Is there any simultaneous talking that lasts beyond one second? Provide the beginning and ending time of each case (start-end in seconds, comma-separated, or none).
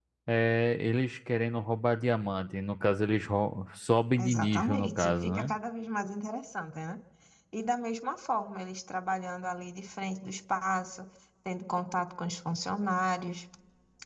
4.2-5.5